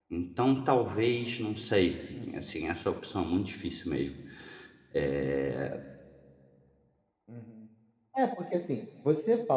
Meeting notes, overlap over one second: none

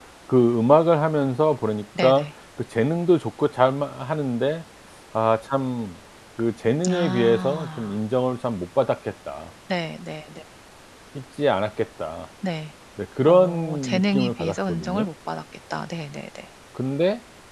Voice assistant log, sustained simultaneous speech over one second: present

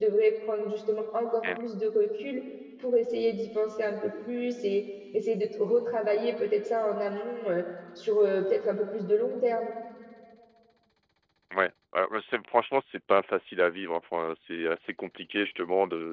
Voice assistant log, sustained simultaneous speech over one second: none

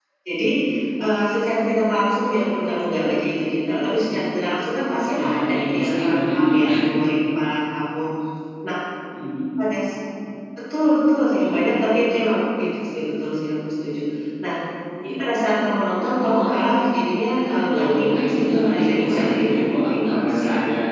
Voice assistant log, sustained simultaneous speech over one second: present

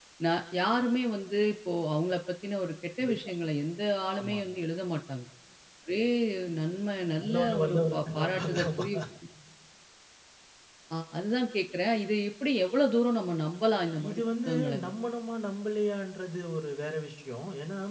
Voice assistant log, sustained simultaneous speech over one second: present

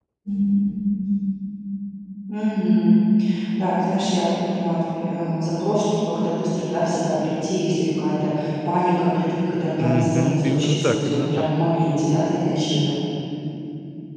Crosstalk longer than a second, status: present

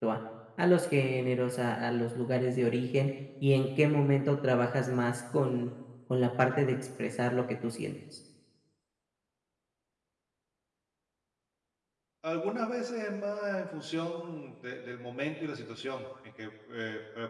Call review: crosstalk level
none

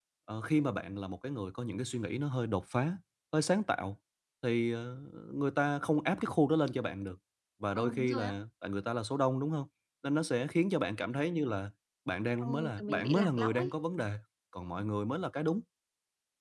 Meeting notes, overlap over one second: present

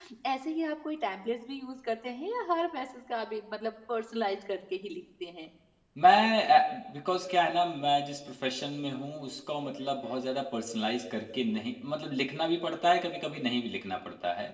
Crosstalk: none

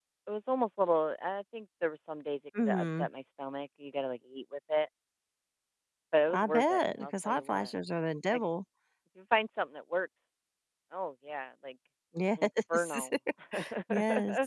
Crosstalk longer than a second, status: present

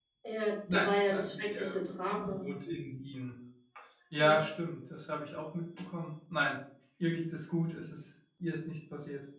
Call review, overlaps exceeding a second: present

